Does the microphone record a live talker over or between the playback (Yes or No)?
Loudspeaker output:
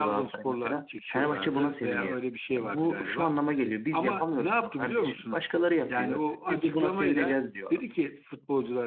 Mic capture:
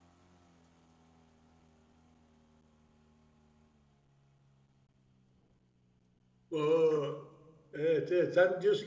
Yes